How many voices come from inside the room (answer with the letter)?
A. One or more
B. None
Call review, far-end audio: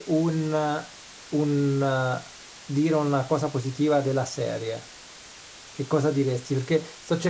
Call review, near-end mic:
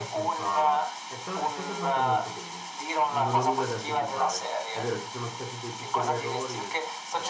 A